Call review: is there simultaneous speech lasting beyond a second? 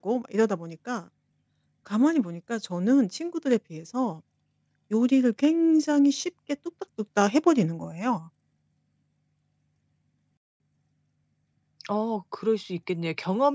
No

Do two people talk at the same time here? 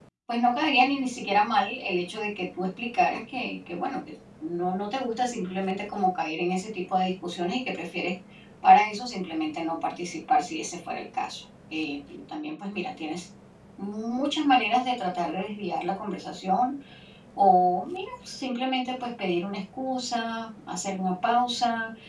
No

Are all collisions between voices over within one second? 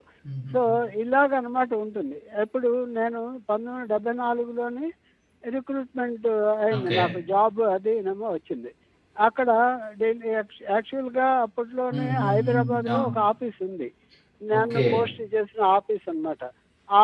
No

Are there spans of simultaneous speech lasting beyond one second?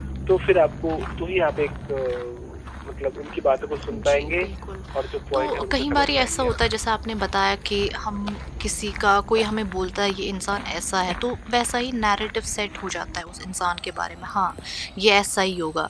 Yes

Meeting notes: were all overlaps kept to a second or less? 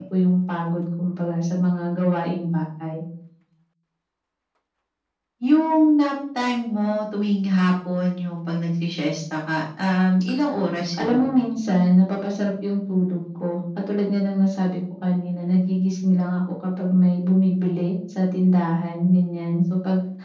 Yes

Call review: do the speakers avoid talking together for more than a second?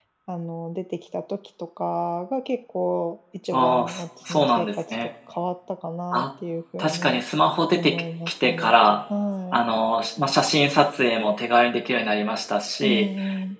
No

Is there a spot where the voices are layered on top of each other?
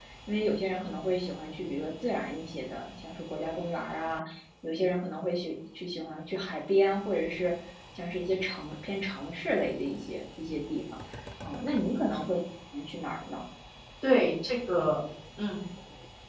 No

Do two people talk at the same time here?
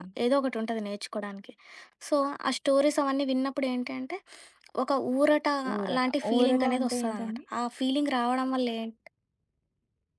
Yes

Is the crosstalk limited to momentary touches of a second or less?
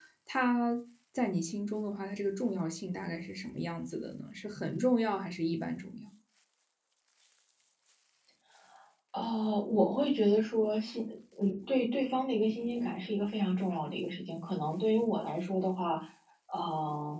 Yes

